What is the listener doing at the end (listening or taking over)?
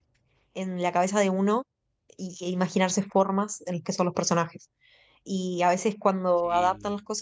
listening